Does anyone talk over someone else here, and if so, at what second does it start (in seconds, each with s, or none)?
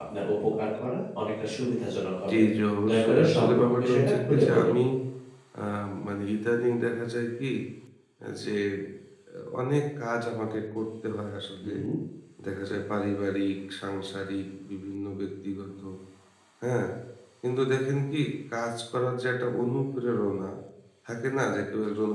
2.9 s